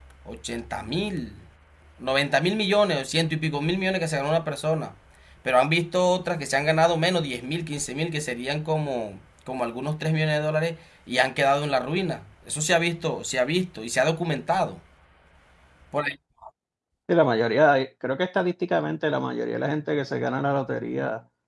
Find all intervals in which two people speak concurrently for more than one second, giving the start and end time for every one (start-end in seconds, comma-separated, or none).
none